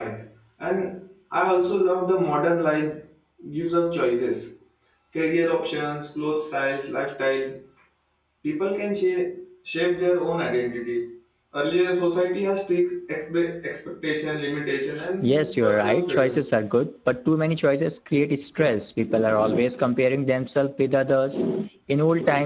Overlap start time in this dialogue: 15.2 s

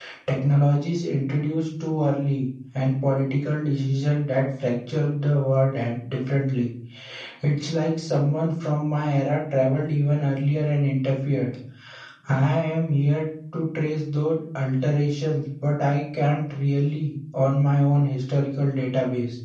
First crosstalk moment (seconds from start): none

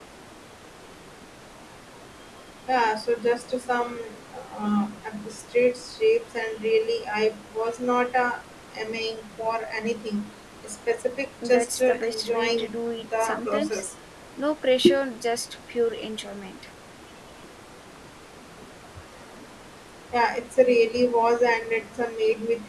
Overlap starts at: 11.4 s

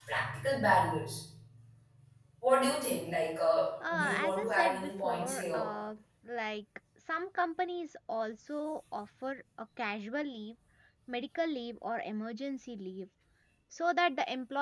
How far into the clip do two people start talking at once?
3.8 s

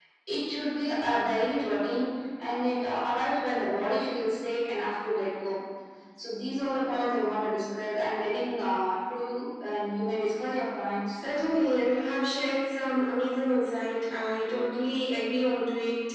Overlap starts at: none

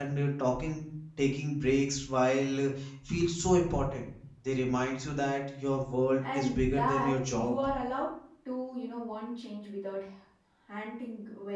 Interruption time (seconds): 6.2 s

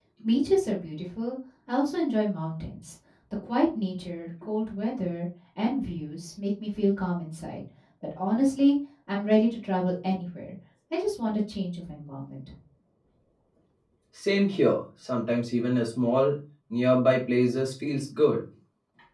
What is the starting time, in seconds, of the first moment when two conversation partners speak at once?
none

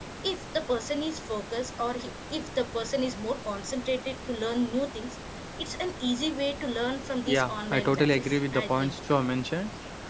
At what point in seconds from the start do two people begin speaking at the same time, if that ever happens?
7.3 s

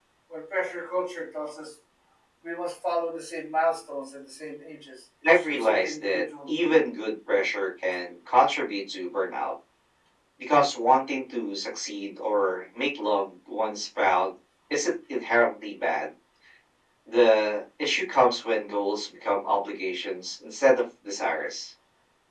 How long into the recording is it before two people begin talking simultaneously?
5.2 s

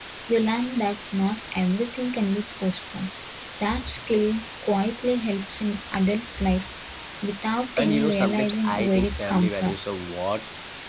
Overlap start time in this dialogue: 7.8 s

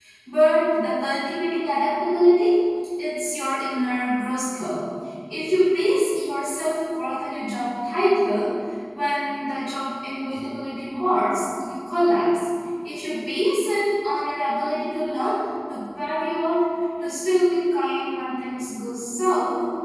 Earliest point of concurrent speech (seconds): none

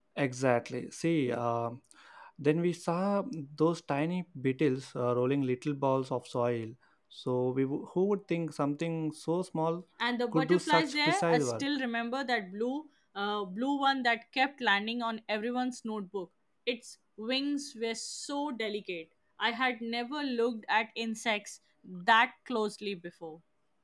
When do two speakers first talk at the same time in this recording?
10.3 s

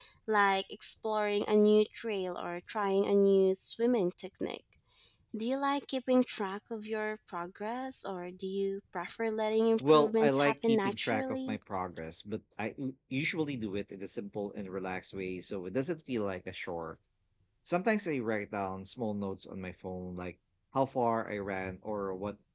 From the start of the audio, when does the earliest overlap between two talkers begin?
9.8 s

